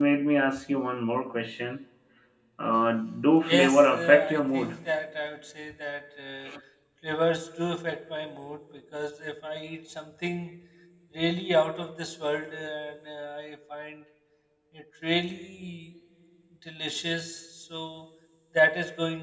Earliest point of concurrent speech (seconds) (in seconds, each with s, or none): 3.5 s